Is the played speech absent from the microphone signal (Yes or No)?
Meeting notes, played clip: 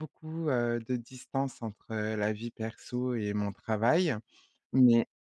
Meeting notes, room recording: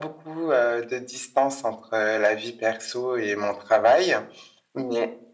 No